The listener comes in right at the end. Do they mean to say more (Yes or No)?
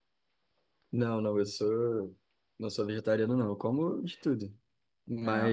No